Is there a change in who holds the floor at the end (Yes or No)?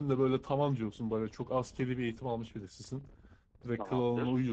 No